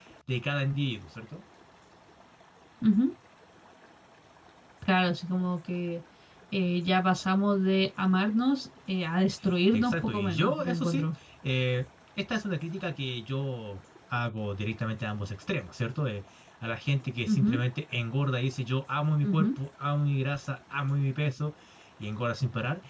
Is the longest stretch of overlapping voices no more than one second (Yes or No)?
No